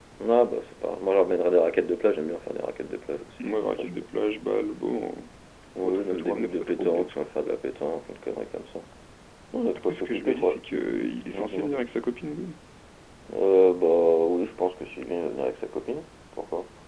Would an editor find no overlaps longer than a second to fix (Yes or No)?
No